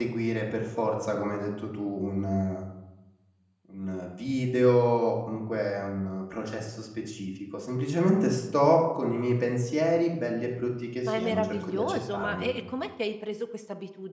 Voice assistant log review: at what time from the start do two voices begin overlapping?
11.0 s

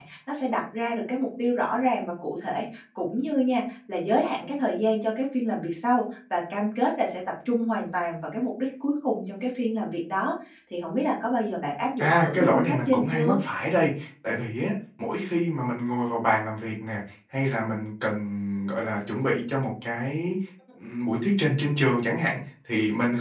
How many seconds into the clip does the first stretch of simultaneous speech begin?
12.0 s

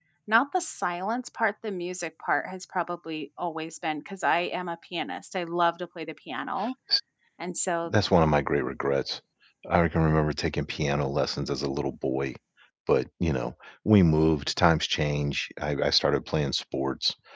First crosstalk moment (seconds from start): none

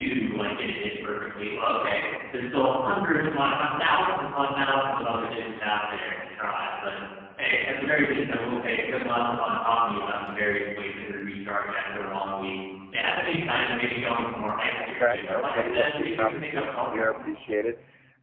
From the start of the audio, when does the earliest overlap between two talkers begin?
14.7 s

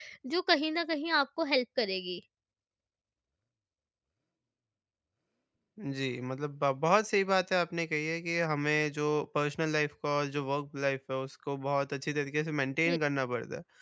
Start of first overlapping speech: none

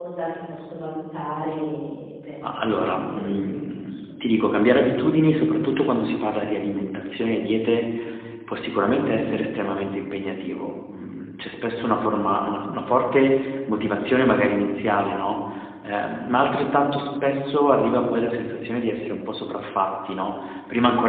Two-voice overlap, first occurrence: 2.4 s

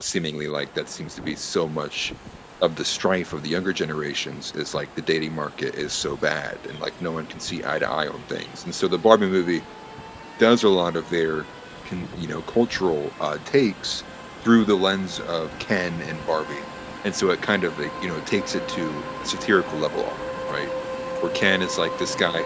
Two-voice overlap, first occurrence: none

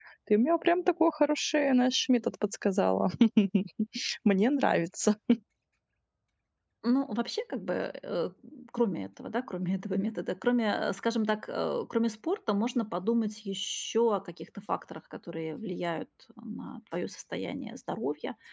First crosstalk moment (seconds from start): none

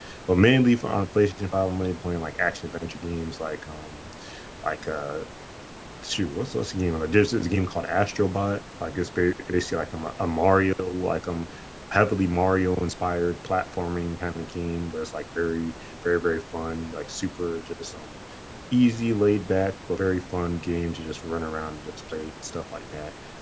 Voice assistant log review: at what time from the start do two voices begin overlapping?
none

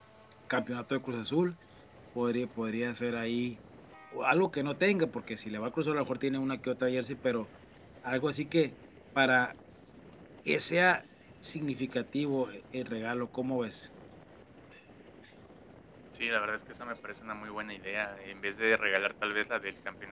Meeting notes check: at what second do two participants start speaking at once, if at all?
none

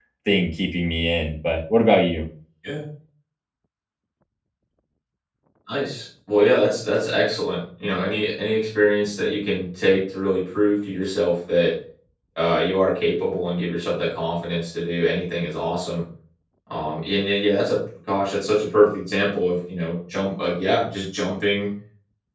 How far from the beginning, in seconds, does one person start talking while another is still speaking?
none

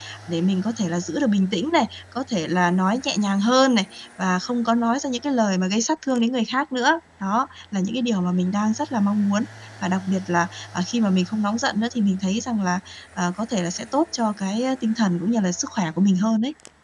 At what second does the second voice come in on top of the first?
none

